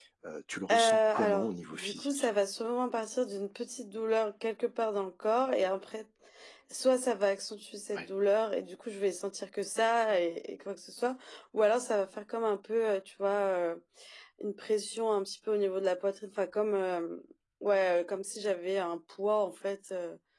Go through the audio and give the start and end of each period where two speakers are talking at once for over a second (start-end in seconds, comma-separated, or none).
0.7-2.3